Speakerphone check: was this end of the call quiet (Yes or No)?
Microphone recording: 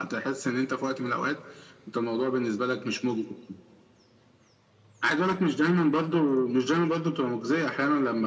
Yes